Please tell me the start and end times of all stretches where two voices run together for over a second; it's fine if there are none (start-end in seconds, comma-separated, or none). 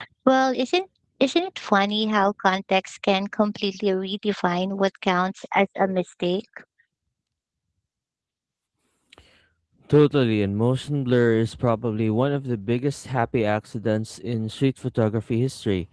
none